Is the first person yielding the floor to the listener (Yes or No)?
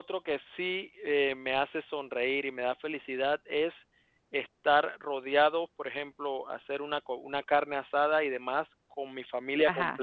No